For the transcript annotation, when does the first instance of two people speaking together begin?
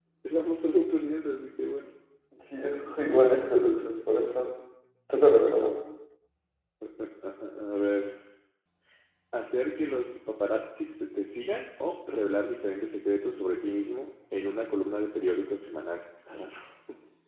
none

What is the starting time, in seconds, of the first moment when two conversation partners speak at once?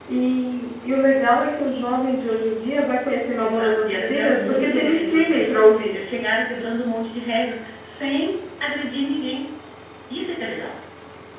3.4 s

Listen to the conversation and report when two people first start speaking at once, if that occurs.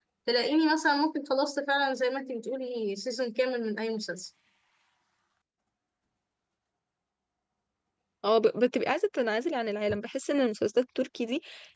none

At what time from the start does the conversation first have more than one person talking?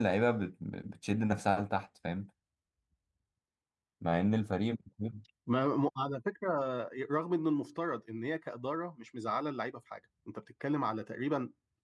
none

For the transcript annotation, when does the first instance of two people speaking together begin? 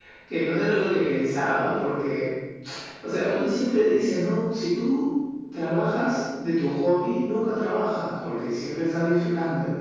none

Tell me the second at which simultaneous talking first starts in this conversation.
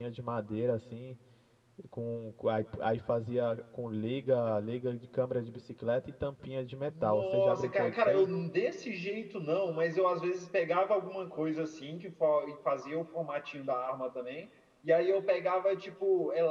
7.0 s

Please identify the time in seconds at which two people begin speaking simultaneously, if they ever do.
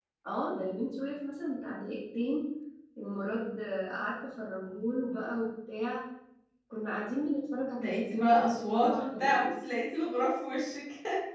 7.8 s

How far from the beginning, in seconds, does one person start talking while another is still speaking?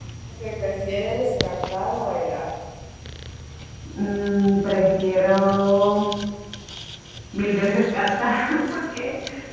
none

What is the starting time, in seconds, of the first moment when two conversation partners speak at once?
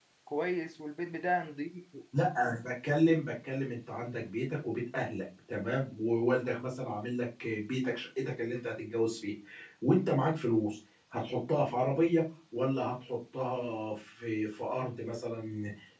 none

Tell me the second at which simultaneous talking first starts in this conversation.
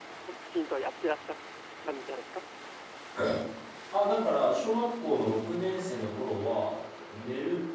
none

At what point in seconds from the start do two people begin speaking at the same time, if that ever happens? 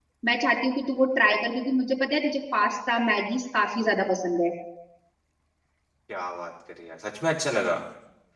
none

